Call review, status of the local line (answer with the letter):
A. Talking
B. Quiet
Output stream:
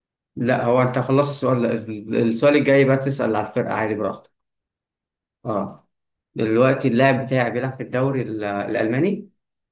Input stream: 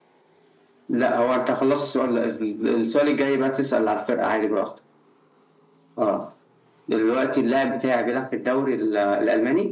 B